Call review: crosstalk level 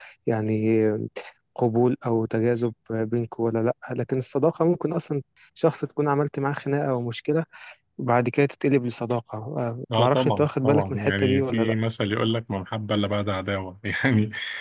present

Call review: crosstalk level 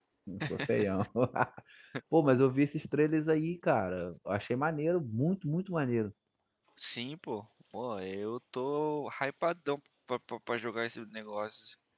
none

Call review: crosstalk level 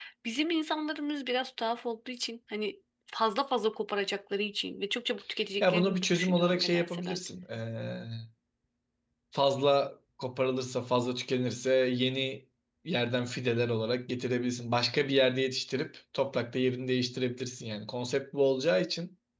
present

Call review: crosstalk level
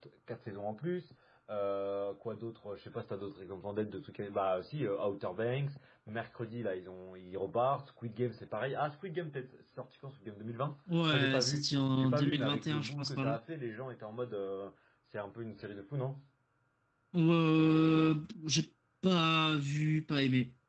present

